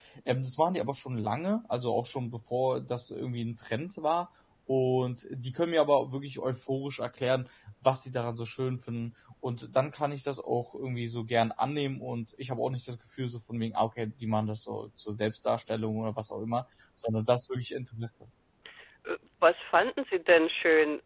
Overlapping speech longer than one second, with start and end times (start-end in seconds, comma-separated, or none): none